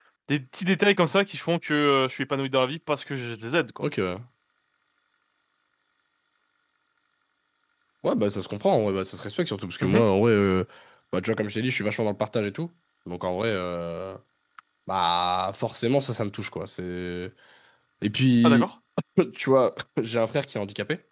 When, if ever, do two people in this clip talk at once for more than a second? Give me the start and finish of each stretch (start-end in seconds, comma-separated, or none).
none